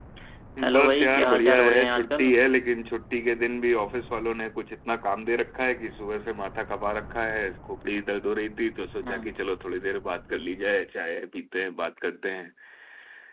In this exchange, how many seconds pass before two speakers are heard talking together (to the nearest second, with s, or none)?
1 s